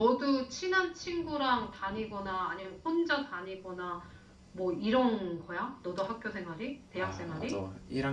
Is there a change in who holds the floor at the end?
Yes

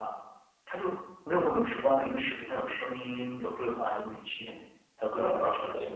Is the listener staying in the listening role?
No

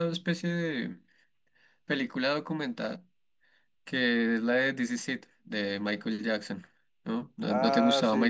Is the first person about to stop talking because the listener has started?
Yes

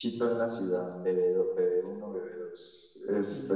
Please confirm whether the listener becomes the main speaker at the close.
No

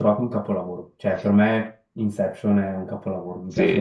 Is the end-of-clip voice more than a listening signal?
Yes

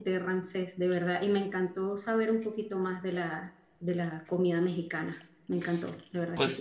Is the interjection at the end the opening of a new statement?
Yes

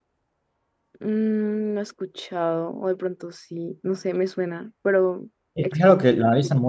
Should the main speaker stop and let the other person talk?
Yes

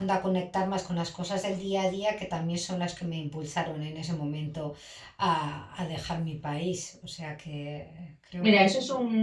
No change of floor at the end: No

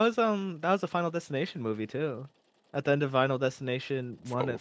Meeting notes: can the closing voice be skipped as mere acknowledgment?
No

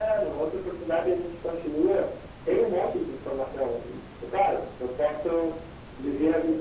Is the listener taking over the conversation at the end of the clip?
No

